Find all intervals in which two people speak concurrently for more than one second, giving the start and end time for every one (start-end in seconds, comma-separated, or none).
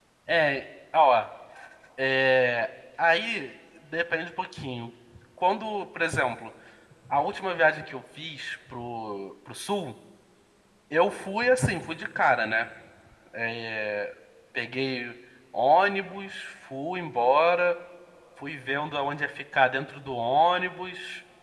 none